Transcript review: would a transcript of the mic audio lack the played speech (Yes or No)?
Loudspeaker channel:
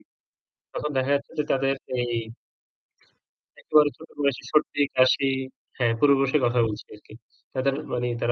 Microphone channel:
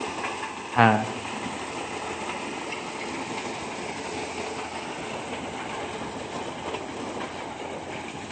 Yes